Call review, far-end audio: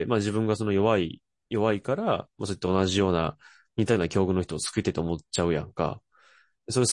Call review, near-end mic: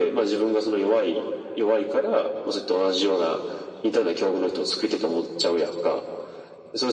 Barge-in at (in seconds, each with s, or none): none